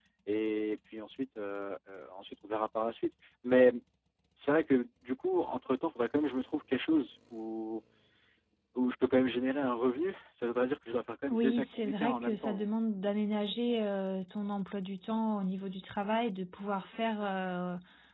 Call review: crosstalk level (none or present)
present